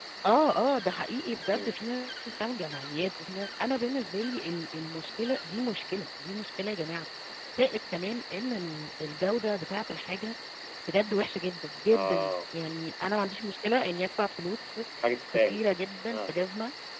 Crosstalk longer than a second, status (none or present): none